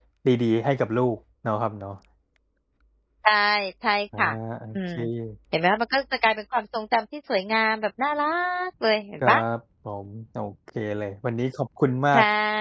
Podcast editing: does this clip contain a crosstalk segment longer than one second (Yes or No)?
No